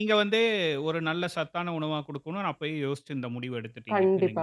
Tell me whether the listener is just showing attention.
No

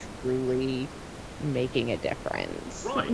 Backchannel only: No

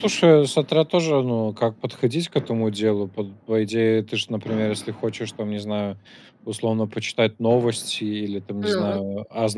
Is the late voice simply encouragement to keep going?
Yes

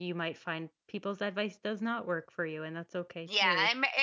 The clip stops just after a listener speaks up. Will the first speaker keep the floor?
No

